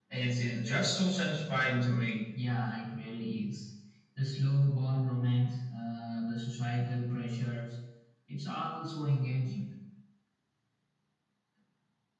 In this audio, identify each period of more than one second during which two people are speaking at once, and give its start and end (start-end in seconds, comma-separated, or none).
none